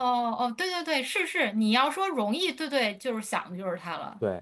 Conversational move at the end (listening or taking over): taking over